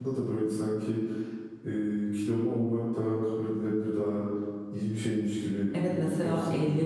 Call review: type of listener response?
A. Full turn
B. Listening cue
A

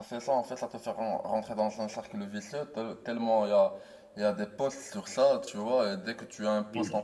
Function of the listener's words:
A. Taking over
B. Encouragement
B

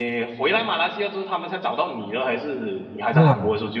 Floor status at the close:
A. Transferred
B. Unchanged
A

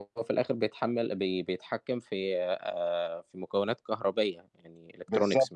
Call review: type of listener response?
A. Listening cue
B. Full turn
B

